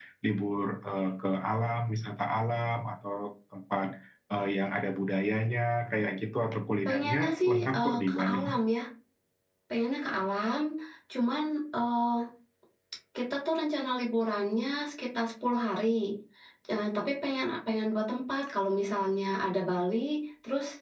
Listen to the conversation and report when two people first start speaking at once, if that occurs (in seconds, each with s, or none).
6.8 s